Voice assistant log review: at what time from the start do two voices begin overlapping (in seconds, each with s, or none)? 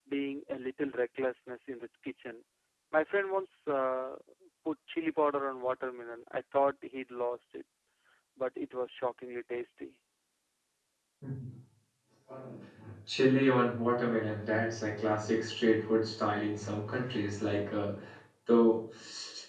none